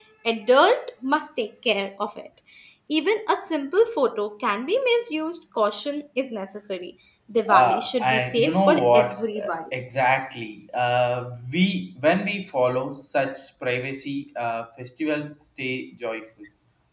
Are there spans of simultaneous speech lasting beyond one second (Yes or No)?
Yes